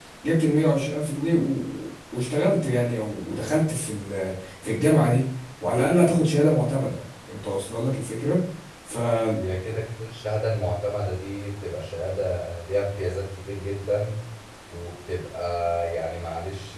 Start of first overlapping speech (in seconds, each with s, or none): none